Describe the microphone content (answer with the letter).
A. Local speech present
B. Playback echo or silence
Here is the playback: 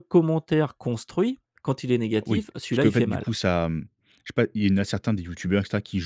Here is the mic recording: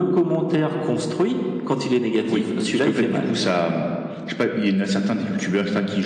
B